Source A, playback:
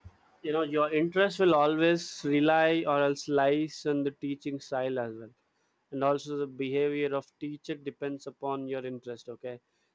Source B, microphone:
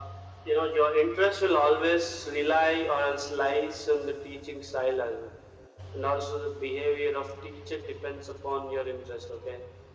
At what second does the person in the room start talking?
none

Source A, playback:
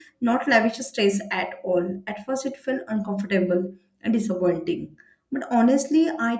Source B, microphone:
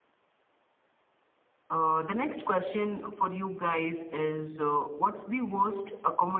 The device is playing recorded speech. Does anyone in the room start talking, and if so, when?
1.7 s

